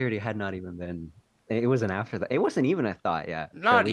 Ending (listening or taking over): taking over